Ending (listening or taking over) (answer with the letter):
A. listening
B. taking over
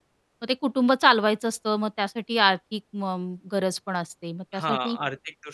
B